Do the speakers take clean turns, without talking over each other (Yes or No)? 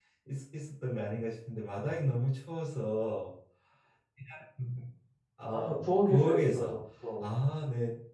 No